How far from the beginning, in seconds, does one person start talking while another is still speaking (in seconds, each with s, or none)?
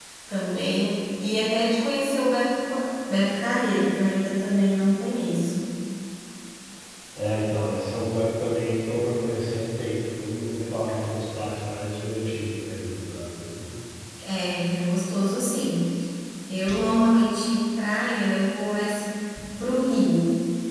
none